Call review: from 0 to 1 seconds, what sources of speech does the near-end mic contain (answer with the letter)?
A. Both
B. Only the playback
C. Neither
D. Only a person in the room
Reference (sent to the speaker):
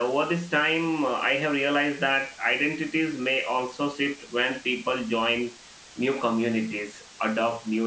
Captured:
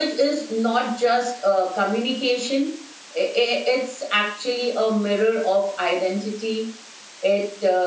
D